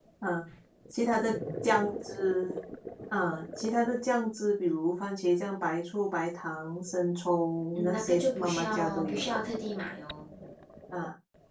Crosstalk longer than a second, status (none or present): present